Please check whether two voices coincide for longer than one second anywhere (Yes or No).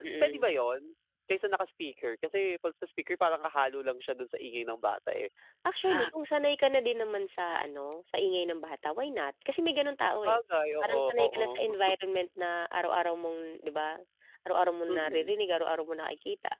Yes